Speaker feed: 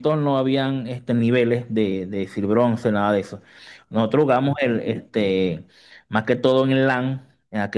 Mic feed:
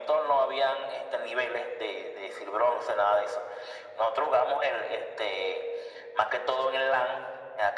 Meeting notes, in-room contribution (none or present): none